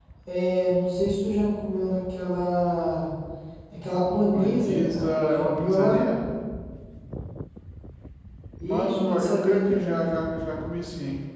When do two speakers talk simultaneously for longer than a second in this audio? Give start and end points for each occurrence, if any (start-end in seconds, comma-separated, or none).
4.3-6.0, 8.6-10.1